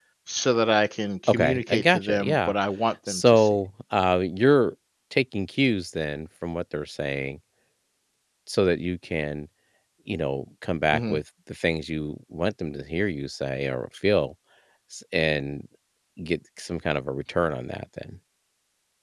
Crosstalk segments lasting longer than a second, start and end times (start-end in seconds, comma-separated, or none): 1.3-2.5